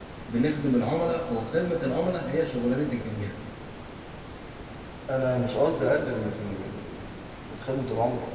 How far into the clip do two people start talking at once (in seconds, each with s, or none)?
none